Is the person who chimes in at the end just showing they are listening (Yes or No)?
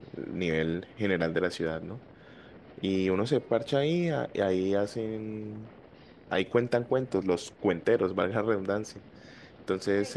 No